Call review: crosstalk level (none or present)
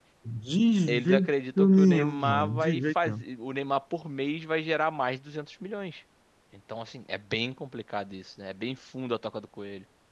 present